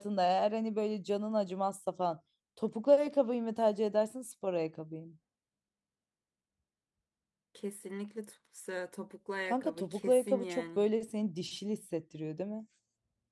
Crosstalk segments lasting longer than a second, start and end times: 9.5-10.8

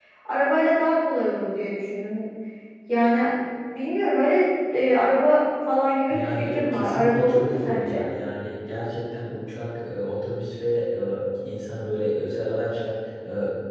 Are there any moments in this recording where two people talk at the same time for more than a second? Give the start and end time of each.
6.1-8.0

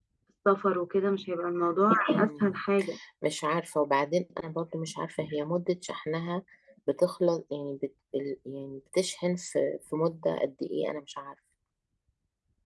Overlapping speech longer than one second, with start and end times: none

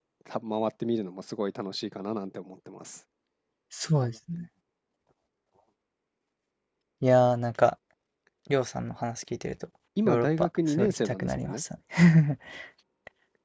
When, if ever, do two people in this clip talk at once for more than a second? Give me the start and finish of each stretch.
10.1-11.6

